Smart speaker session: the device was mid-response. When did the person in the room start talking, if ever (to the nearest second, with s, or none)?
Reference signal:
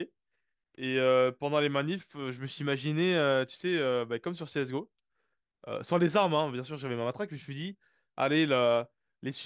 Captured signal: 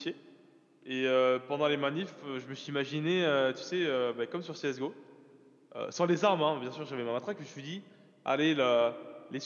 none